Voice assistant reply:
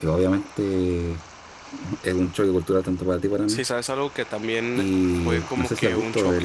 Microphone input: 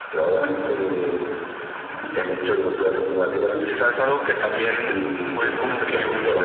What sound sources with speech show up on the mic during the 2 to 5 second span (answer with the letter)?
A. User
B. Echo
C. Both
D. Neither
B